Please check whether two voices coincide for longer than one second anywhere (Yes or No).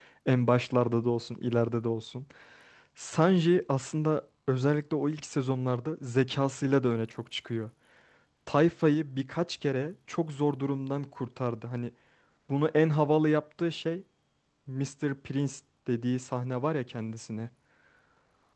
No